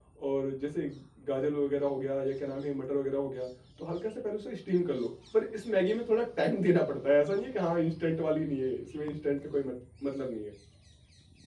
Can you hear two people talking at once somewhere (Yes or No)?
No